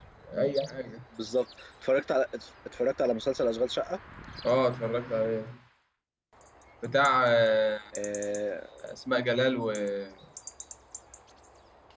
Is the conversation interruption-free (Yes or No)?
Yes